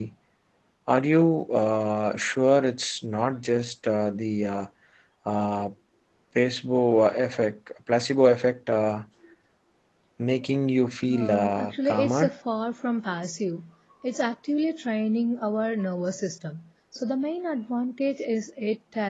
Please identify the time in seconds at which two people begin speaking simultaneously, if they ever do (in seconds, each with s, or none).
11.1 s